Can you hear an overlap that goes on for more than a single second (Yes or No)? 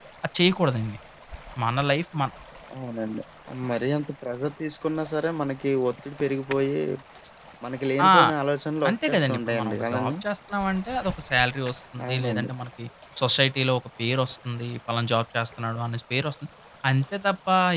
Yes